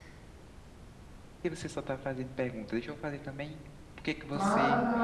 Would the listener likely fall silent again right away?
No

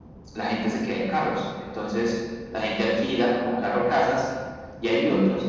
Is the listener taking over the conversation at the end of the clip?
No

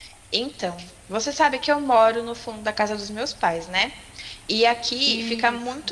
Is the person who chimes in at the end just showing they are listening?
Yes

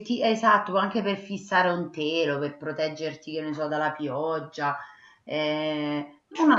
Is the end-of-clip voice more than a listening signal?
No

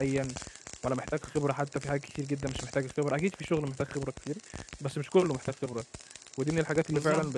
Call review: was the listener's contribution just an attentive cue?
Yes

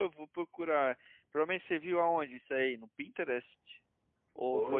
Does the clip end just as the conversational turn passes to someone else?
Yes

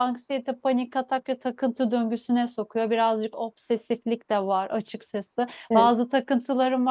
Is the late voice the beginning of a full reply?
No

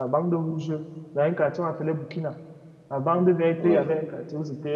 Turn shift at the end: No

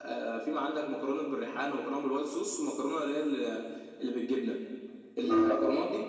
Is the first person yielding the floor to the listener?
No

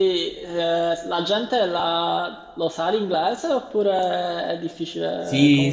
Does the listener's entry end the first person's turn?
Yes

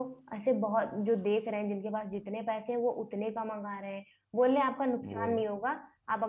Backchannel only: Yes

